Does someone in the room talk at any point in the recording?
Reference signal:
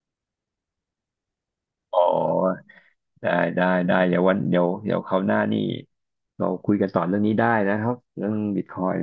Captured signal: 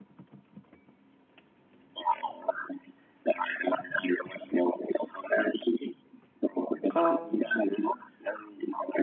Yes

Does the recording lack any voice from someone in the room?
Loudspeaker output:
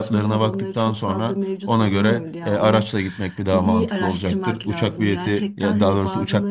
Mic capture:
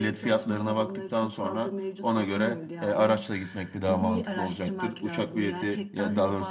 Yes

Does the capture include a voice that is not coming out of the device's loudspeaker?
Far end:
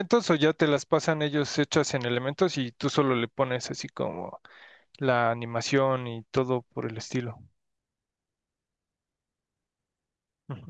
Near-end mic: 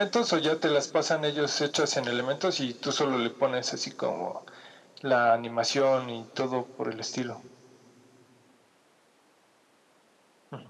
No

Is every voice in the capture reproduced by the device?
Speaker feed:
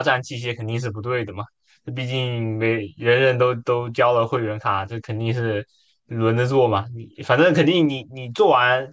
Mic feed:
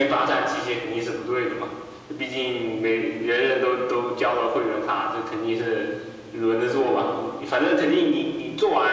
Yes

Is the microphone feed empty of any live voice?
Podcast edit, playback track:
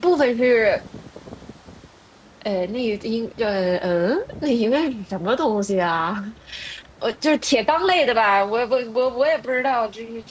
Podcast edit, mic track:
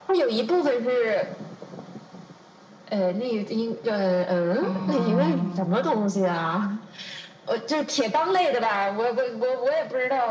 No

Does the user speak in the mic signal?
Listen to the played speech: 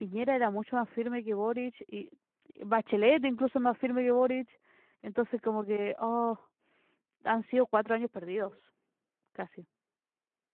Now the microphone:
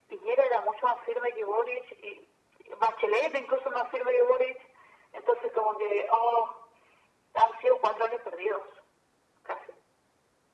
No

